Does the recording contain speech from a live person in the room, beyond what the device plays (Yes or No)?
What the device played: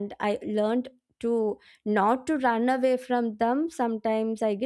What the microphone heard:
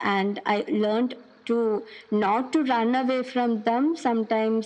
No